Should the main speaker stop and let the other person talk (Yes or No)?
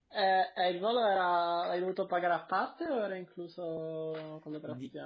Yes